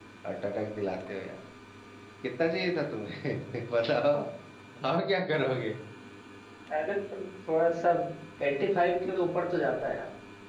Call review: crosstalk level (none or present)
none